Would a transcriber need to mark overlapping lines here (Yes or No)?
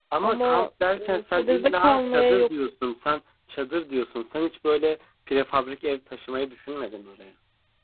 Yes